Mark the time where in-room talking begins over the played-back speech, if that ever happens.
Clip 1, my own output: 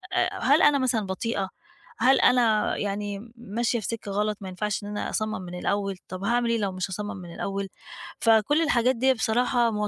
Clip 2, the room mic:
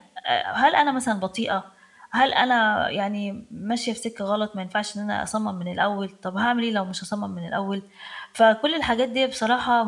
none

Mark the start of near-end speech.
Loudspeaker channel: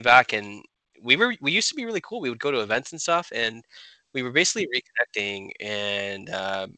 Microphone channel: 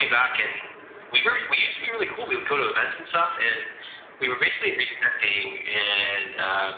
none

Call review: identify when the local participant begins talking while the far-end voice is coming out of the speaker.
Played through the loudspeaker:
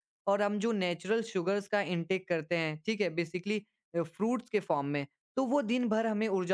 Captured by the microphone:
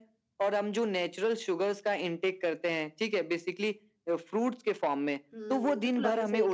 5 s

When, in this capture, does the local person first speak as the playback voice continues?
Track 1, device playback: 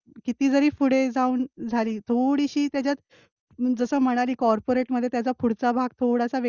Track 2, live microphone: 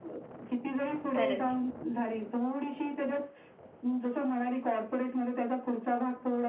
1 s

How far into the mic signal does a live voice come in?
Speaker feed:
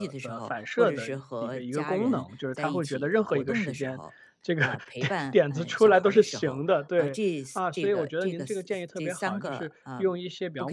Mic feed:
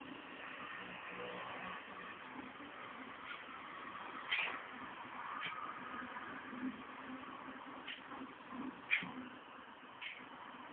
none

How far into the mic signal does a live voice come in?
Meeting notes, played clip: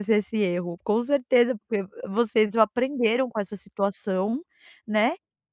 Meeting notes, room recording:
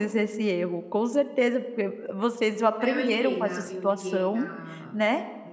3 s

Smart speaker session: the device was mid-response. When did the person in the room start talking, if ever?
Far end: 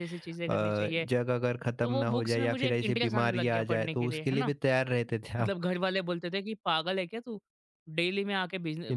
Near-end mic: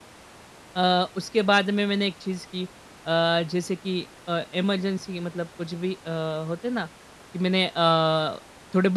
1 s

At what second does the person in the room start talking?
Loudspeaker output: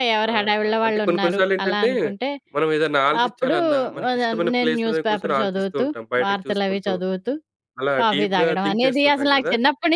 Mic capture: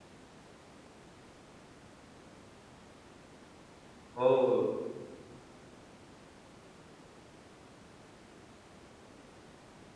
4 s

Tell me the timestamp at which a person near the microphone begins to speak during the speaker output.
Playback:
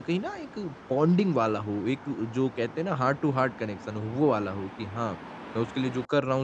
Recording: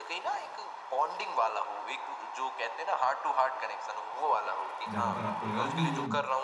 5 s

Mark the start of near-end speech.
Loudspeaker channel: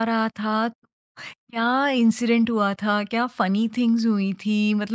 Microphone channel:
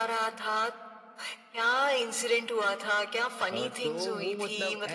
4 s

